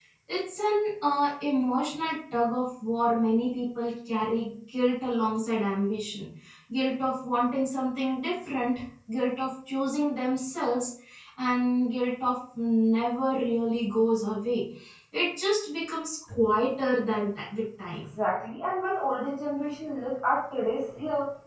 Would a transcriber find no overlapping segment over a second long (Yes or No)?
Yes